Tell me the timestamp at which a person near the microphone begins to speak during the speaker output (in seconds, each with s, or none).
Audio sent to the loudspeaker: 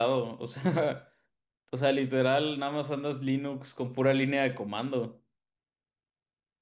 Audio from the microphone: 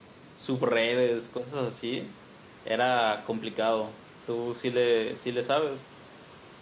0.3 s